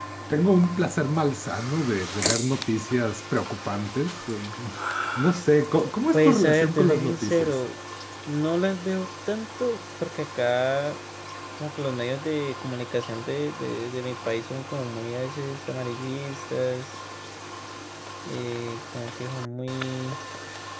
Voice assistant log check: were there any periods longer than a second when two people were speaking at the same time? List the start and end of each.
6.1-7.6

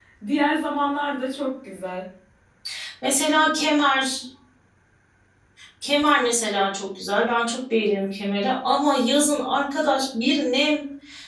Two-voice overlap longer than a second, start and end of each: none

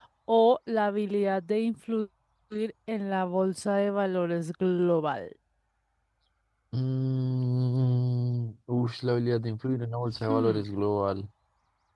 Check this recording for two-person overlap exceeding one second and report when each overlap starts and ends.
none

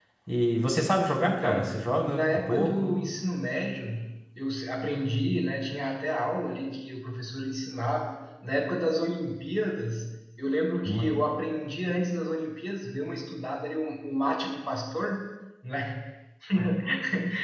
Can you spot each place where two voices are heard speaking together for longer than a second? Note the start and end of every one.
1.2-2.9

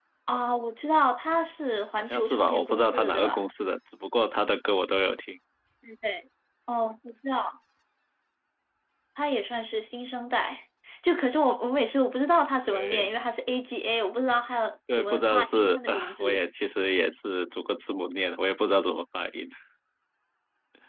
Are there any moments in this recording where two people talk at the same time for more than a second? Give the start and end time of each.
2.0-3.4, 14.9-16.4

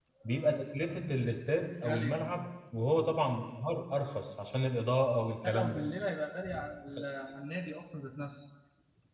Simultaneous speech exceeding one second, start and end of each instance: none

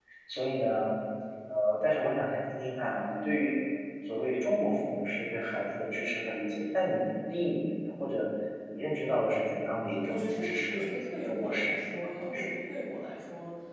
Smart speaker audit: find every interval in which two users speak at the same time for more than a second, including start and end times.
10.0-12.5

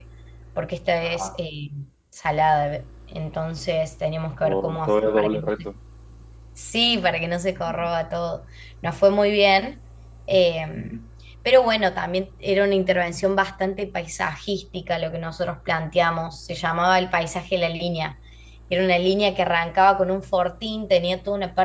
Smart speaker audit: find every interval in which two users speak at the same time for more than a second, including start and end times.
4.4-5.7

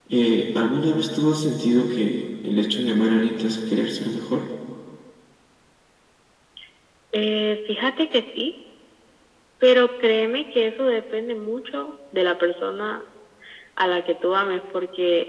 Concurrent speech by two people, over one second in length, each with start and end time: none

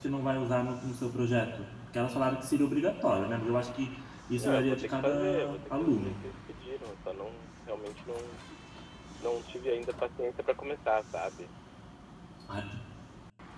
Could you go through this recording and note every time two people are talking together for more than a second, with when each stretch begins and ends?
4.4-6.2

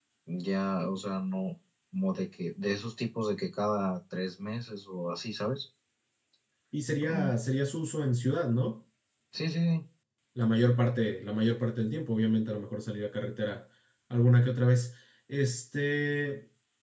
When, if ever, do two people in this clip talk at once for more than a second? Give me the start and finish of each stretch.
none

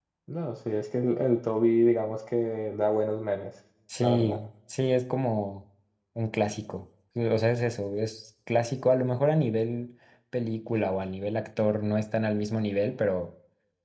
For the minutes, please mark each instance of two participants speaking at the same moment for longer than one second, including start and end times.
none

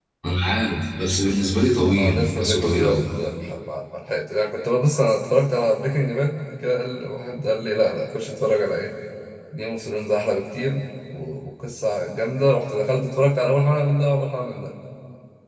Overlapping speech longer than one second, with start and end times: 1.8-3.0

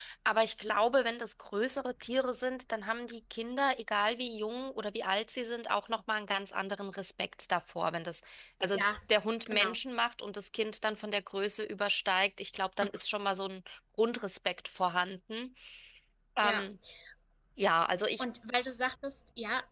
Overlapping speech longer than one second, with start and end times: none

